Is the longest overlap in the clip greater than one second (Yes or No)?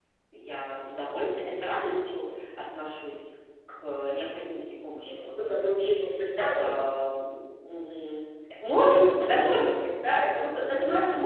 No